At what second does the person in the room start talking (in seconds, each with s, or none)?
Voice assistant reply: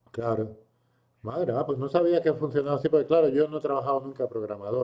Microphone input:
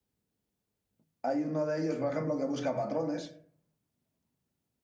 1.2 s